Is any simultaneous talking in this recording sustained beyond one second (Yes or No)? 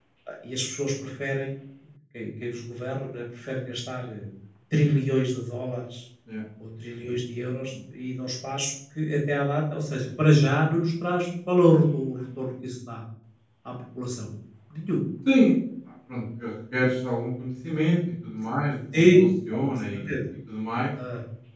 No